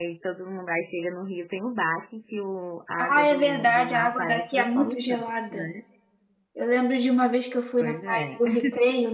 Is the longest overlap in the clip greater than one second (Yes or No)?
Yes